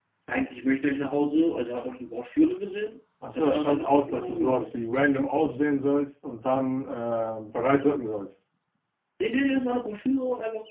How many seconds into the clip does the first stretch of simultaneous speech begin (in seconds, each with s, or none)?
3.2 s